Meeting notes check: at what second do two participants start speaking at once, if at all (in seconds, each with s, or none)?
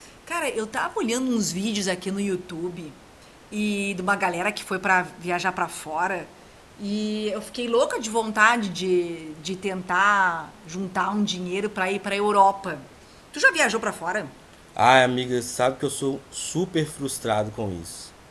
none